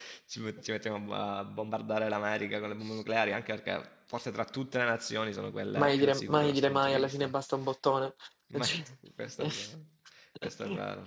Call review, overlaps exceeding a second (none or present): present